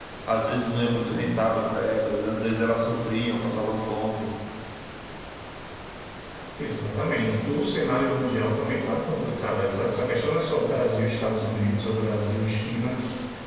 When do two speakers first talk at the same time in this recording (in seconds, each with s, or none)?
none